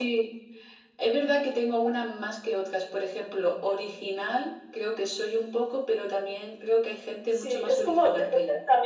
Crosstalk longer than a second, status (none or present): present